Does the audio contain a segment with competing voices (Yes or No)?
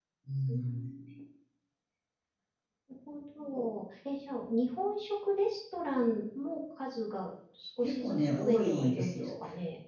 Yes